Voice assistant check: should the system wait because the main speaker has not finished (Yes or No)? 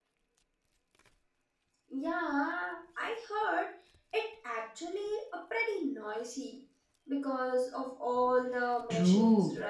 No